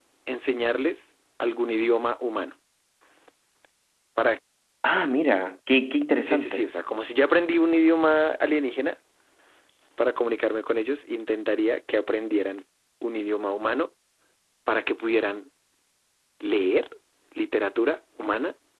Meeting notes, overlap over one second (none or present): none